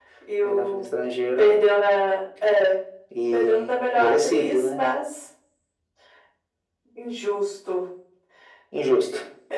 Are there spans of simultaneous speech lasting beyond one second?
Yes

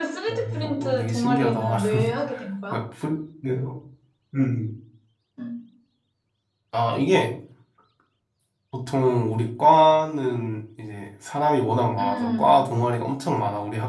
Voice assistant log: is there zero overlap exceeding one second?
No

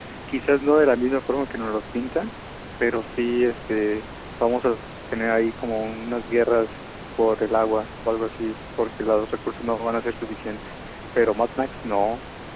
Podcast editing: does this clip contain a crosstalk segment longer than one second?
No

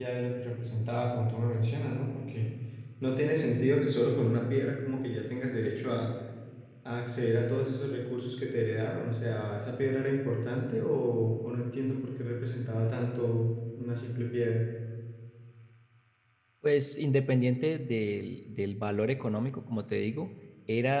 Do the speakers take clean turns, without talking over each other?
Yes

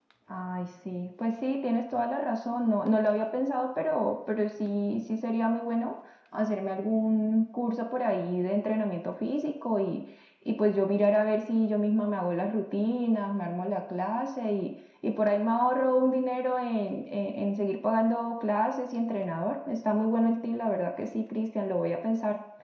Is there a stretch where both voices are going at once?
No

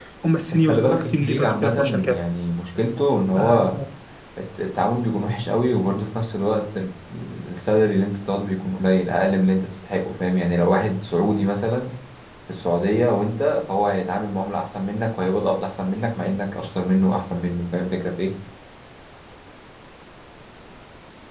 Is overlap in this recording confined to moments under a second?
No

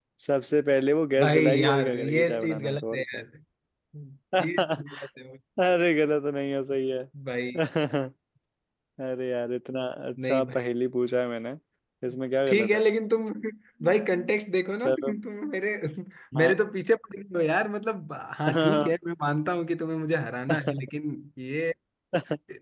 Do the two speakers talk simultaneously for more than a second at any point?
Yes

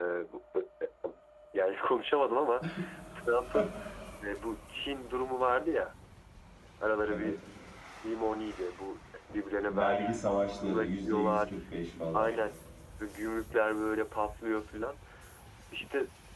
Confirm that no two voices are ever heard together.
No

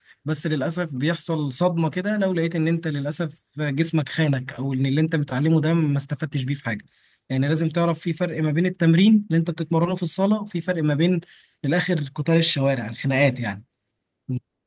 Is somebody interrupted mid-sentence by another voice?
No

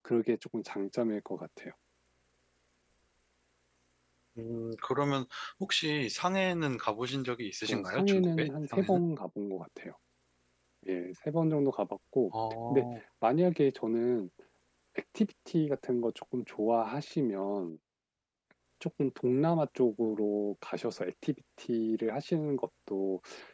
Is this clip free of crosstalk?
No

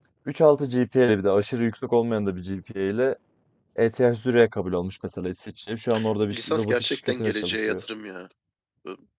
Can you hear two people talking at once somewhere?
Yes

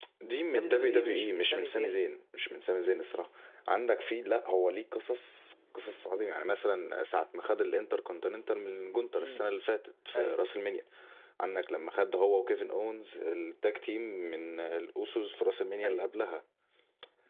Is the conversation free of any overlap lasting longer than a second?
No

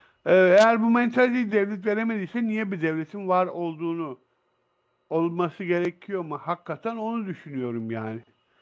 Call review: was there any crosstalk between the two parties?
No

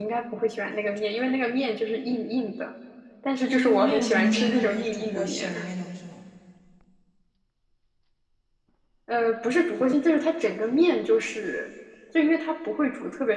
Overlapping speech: Yes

